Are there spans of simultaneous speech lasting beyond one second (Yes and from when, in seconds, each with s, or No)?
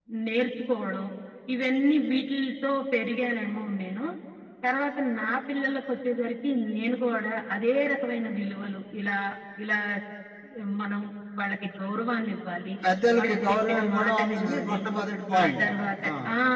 Yes, from 13.2 s